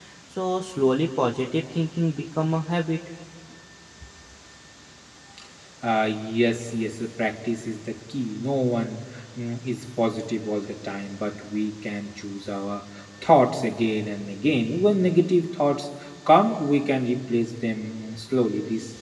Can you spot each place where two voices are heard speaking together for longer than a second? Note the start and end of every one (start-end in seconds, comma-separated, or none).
none